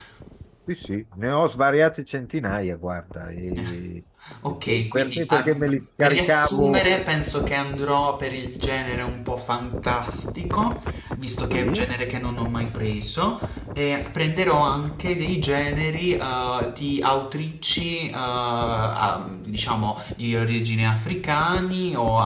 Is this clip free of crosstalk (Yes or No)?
No